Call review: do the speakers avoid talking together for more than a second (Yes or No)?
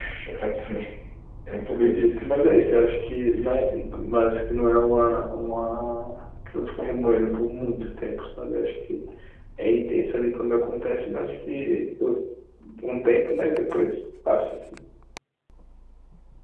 No